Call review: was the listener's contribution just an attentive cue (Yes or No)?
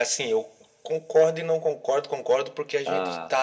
Yes